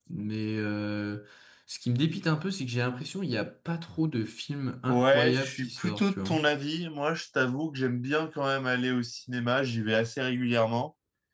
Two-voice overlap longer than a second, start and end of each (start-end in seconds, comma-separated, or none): 4.9-6.4